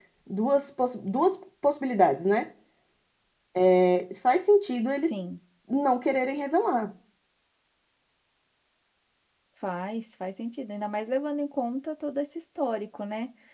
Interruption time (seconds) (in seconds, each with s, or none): none